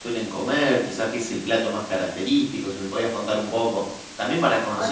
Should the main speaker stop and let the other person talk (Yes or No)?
Yes